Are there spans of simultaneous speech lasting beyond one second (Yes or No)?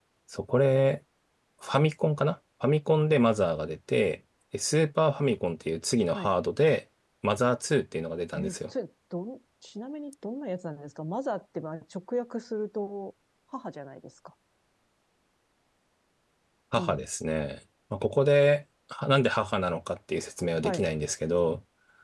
No